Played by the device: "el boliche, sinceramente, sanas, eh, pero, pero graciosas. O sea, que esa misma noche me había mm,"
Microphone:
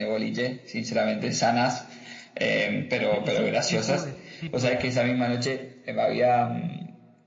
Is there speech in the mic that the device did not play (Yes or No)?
Yes